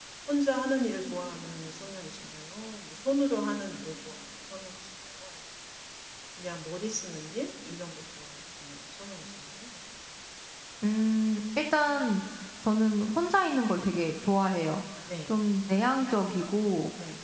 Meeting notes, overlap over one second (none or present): none